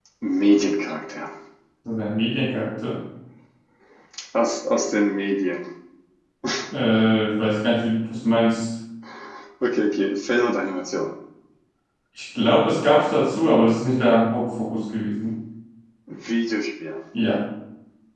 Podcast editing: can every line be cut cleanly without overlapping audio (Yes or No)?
Yes